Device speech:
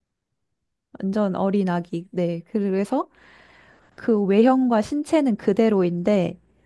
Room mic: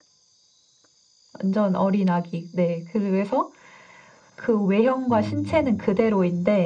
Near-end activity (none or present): present